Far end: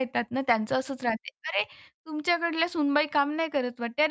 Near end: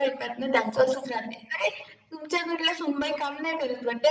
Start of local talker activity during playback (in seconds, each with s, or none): none